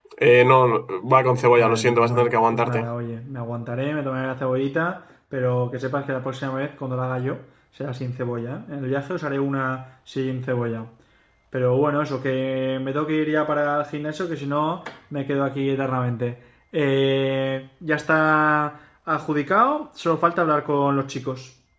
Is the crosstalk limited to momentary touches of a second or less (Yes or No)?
No